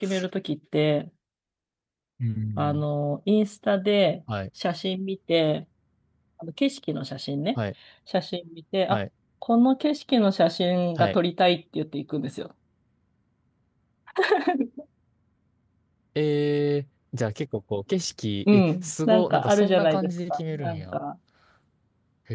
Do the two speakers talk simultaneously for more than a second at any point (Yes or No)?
Yes